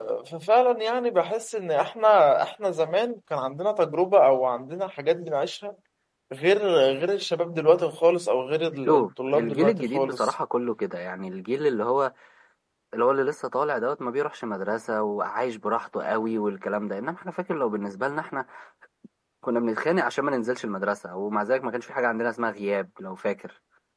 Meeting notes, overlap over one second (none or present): present